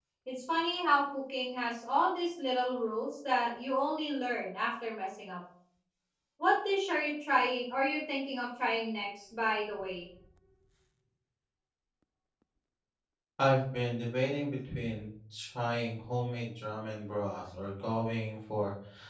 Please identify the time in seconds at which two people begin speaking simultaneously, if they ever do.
none

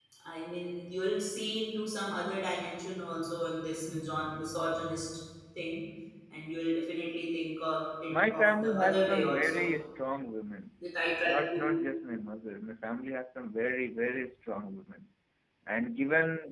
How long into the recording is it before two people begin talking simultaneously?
8.1 s

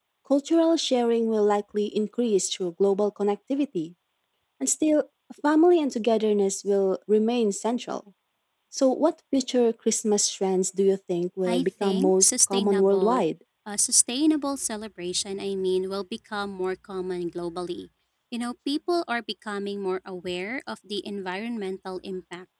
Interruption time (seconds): 11.5 s

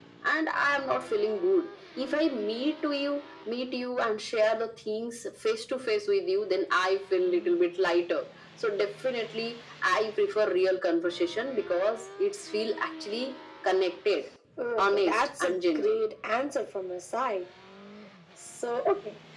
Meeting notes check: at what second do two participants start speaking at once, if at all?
14.8 s

